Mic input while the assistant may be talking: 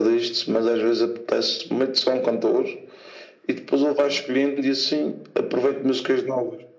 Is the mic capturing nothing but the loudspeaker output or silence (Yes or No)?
Yes